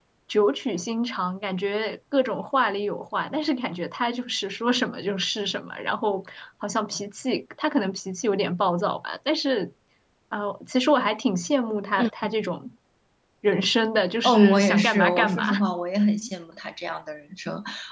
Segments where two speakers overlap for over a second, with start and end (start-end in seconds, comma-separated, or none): 14.2-15.6